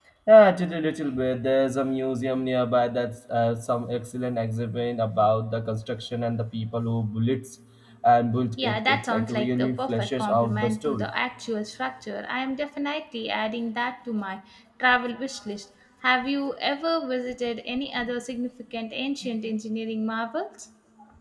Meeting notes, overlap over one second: present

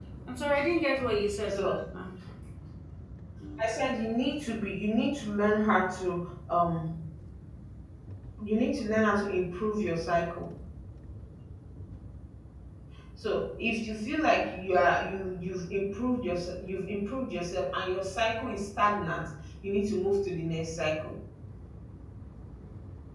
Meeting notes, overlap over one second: none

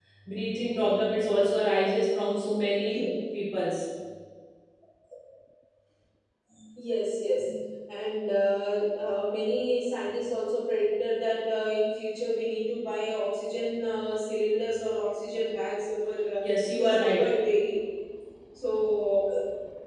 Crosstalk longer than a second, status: none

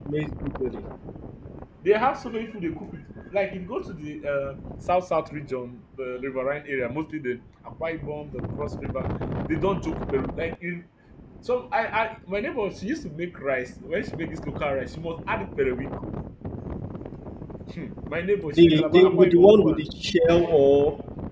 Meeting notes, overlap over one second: present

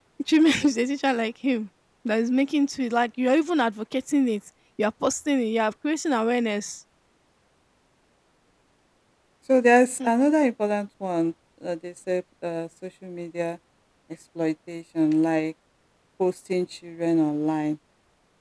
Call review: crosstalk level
none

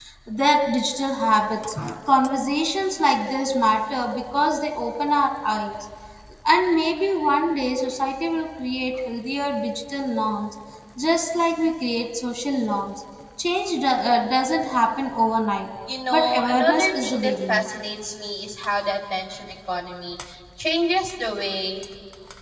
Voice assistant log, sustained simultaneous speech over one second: present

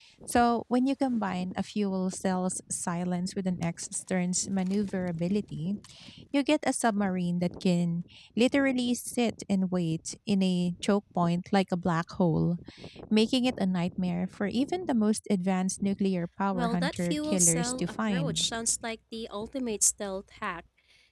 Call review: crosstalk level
present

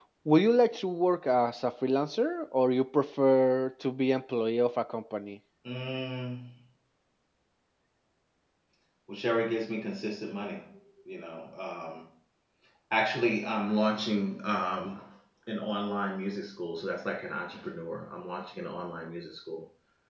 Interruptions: none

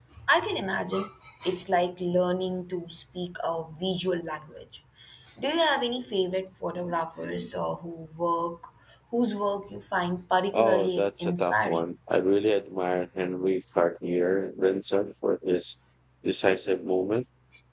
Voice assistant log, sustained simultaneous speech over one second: present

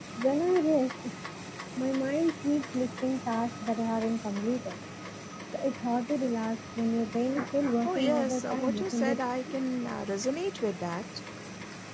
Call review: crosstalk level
present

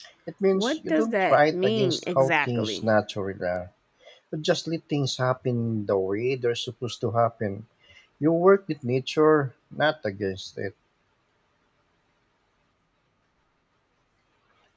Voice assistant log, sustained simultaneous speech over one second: present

